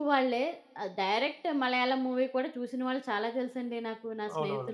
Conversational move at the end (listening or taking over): taking over